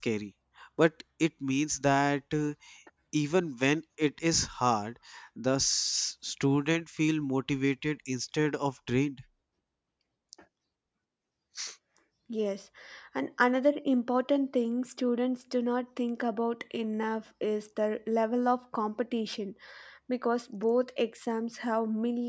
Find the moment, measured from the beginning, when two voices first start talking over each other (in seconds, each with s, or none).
none